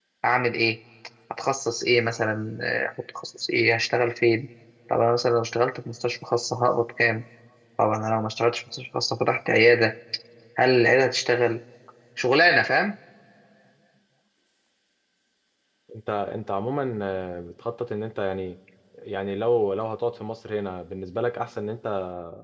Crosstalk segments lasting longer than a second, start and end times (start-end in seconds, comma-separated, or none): none